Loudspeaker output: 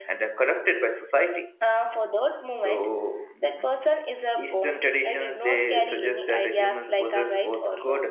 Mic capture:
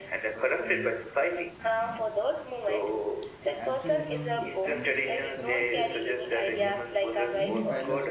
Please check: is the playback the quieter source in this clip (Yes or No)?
No